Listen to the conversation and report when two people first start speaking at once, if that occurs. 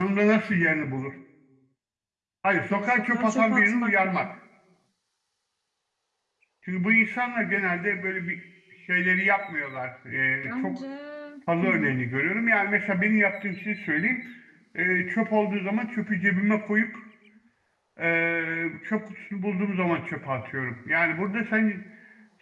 2.7 s

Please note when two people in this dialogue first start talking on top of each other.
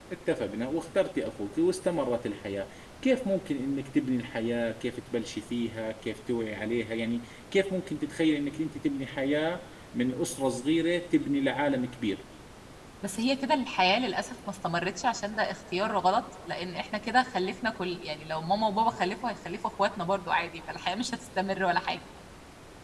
none

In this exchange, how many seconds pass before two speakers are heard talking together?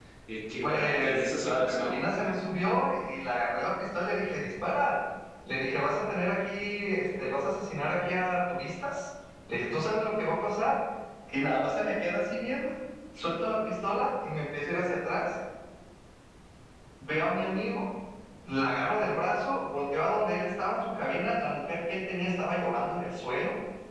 0.6 s

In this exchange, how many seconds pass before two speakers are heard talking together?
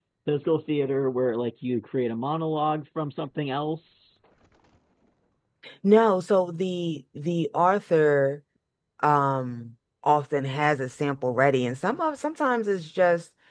none

